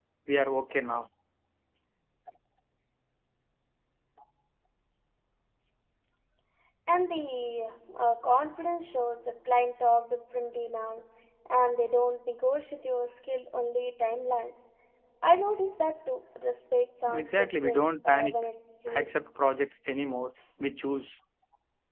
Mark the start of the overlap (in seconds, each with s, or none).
17.1 s